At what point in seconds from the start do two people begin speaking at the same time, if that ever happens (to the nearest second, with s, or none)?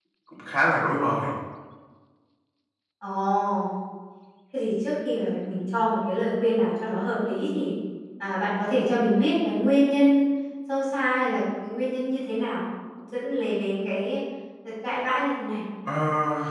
none